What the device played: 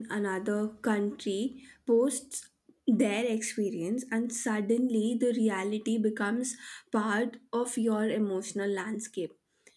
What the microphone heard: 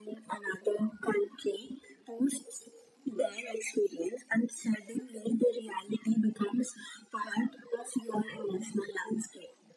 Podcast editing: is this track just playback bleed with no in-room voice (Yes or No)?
Yes